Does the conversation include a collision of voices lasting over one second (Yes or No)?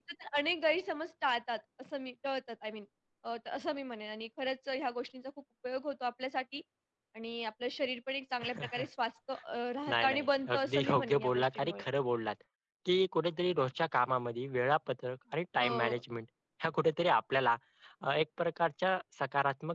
Yes